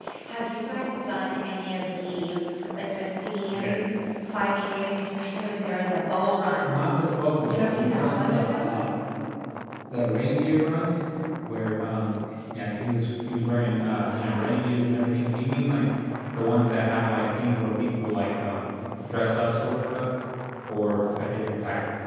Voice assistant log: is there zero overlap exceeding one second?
No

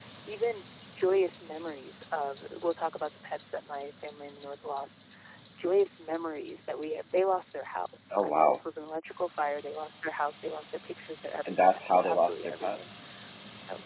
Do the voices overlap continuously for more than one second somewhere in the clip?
Yes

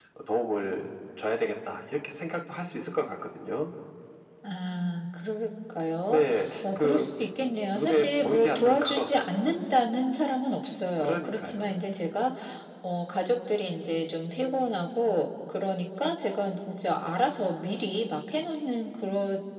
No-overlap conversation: No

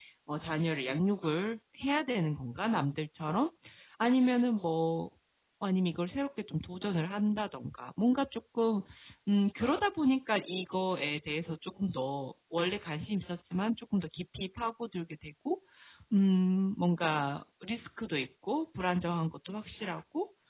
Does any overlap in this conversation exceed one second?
No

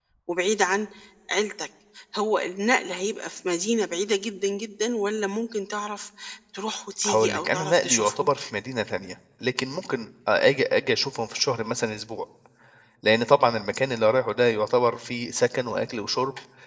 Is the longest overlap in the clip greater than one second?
Yes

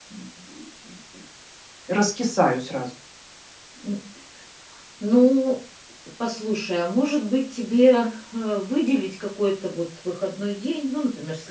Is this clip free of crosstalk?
Yes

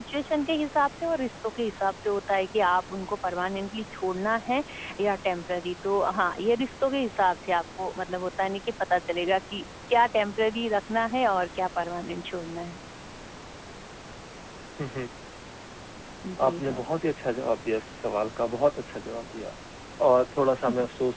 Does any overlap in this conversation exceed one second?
No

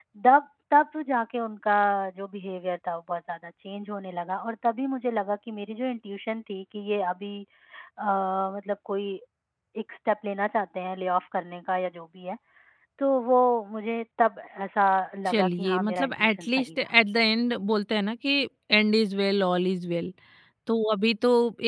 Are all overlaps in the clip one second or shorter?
No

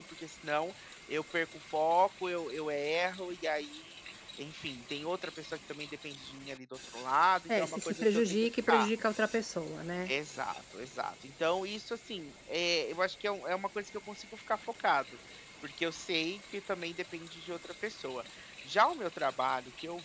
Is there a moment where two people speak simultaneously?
Yes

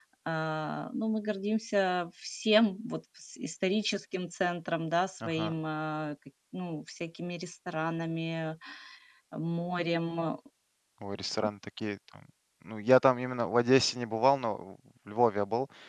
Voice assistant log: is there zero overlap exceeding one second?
Yes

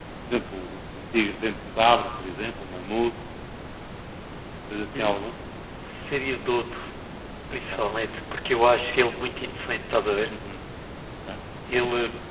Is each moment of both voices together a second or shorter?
Yes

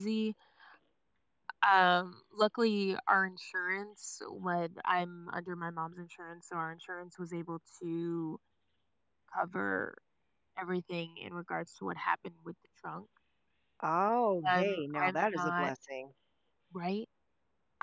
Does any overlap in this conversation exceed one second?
Yes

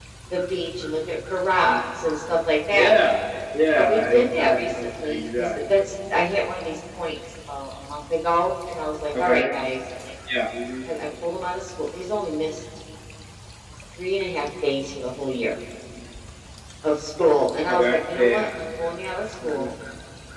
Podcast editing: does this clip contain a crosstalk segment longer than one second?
Yes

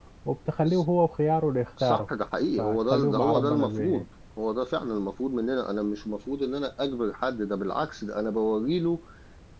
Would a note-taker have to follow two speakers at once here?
Yes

